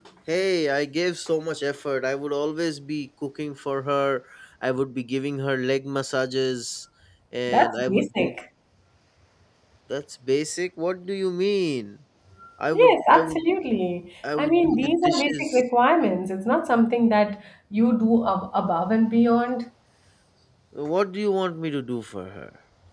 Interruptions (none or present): present